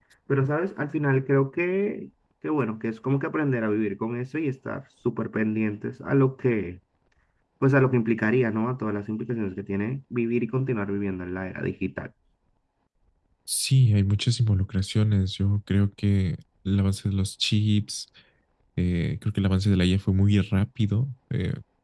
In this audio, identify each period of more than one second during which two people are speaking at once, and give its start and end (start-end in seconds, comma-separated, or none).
none